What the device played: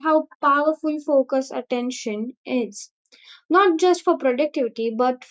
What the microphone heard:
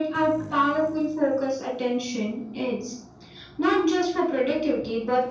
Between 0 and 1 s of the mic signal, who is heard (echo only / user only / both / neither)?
echo only